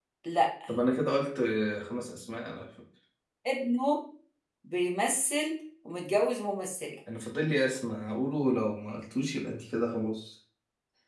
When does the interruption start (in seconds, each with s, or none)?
none